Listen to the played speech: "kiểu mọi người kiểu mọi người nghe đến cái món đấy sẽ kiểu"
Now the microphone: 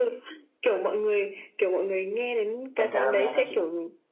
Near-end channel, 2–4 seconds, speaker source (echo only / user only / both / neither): both